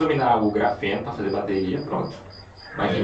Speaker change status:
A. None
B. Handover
A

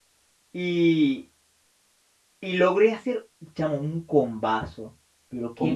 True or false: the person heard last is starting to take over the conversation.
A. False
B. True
A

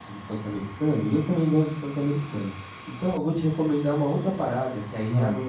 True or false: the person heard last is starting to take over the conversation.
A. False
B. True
A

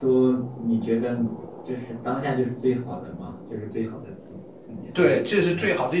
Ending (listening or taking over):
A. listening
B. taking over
B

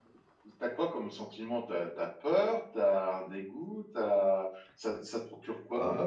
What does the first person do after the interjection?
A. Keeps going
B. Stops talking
B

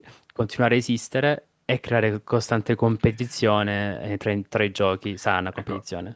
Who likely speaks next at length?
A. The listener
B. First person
A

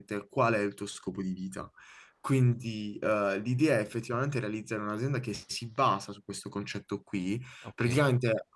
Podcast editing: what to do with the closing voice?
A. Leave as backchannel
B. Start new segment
A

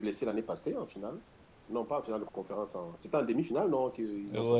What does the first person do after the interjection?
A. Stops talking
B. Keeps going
A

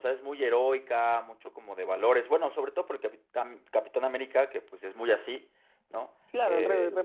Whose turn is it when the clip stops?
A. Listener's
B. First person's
A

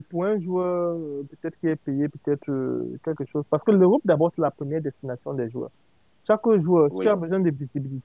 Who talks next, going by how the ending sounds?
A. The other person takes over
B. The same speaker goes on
B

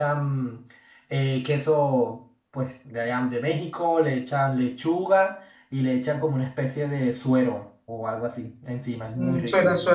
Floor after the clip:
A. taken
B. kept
A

